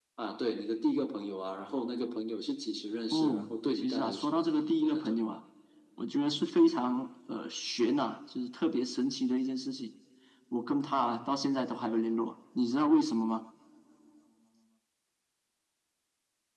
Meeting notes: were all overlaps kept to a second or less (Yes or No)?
No